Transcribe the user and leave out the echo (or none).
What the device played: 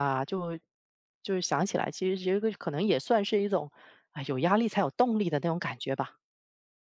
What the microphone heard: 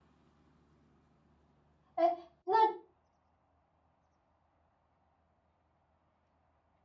哎，那